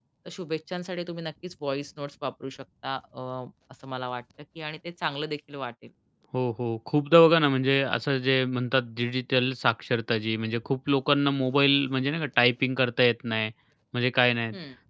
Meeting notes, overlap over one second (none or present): none